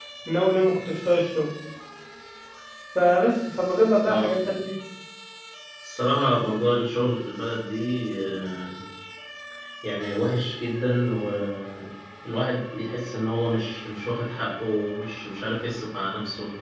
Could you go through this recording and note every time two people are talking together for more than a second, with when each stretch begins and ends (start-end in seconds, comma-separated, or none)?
none